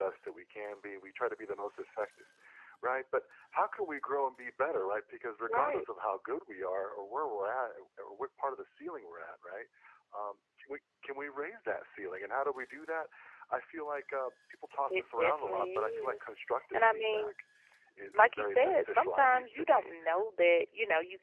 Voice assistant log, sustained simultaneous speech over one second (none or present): present